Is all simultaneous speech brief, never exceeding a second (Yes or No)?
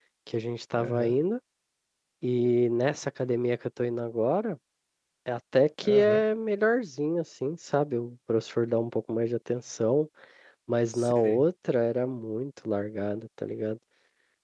Yes